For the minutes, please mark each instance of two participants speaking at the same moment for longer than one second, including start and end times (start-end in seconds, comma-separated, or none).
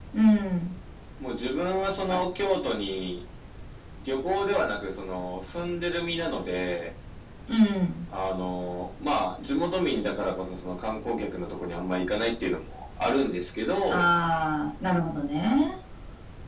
none